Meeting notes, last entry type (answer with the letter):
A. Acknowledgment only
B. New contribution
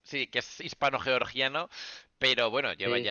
A